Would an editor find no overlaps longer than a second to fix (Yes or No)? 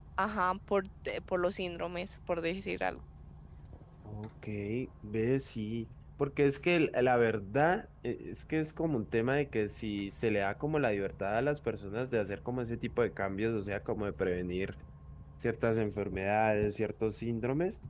Yes